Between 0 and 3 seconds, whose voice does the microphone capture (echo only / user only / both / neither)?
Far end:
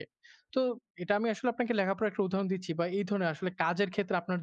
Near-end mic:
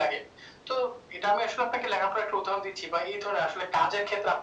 echo only